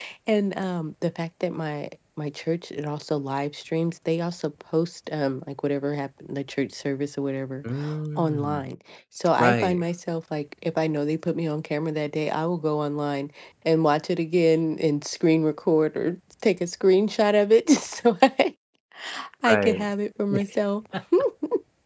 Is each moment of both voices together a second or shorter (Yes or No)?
Yes